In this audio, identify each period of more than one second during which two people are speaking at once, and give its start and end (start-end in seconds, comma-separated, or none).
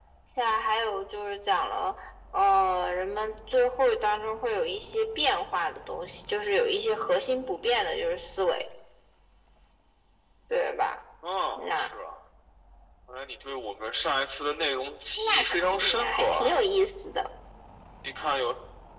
15.2-16.6